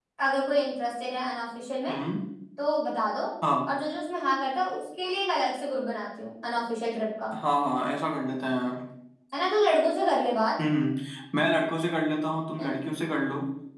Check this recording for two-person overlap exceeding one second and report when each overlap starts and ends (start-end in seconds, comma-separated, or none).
none